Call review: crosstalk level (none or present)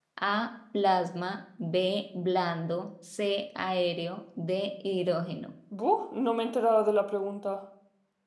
none